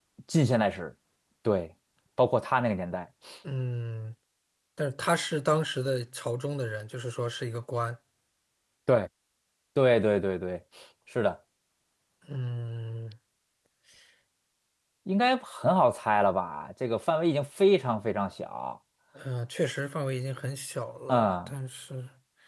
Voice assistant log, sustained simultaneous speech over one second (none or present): none